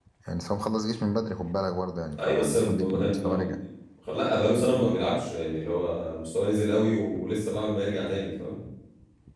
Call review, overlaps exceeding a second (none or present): present